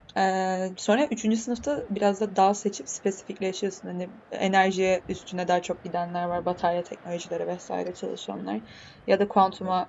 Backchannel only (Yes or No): Yes